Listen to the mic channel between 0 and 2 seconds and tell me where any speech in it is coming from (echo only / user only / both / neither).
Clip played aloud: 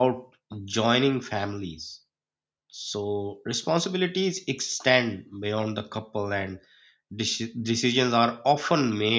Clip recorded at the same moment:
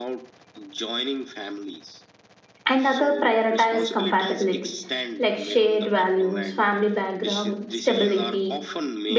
echo only